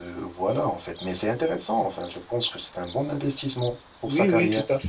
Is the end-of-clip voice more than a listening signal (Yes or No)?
Yes